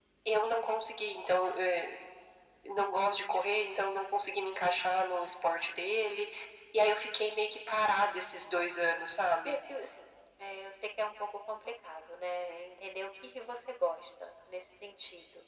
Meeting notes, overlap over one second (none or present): none